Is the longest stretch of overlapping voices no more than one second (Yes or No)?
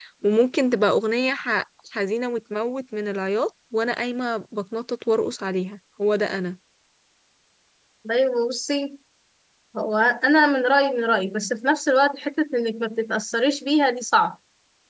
Yes